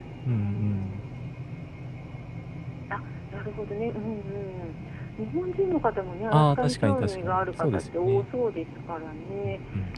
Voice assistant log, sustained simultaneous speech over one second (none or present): present